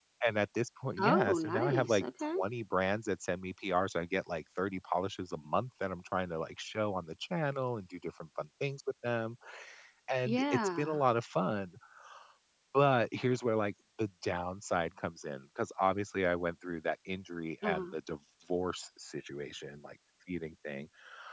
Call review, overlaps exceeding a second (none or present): present